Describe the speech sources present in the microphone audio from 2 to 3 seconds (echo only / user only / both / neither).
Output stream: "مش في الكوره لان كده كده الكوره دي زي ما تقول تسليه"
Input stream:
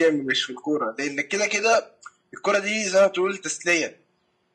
echo only